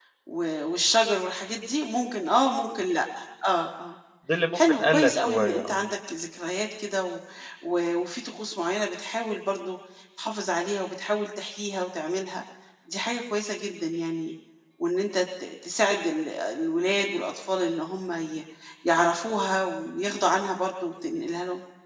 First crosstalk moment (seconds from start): 5 s

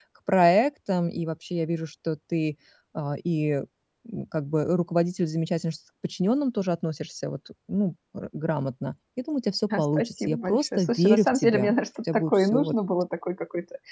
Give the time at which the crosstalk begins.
10 s

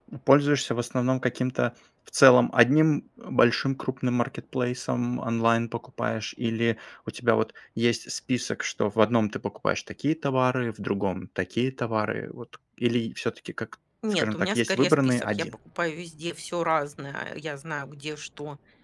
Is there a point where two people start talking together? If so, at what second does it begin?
14 s

